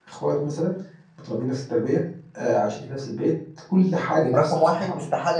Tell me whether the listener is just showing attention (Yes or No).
No